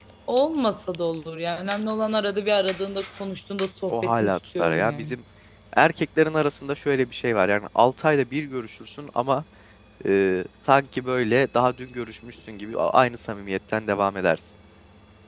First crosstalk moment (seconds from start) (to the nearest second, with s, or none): 4 s